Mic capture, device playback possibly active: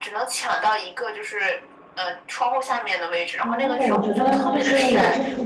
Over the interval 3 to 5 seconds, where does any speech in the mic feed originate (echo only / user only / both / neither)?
both